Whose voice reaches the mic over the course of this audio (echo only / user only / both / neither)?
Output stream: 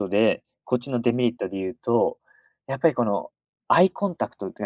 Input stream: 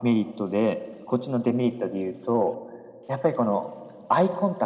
echo only